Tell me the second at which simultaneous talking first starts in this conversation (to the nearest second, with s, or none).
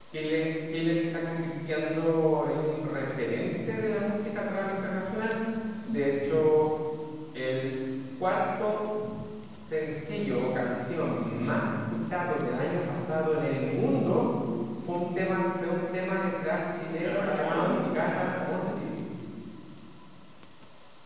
17 s